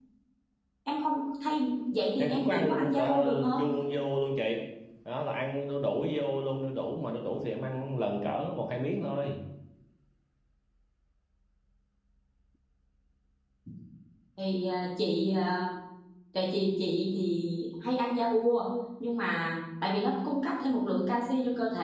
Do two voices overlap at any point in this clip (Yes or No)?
Yes